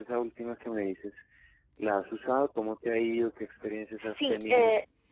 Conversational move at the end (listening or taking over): taking over